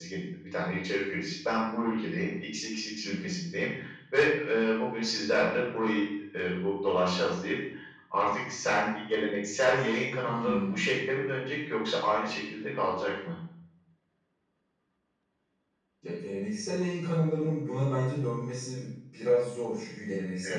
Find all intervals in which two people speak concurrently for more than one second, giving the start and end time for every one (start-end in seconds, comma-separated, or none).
none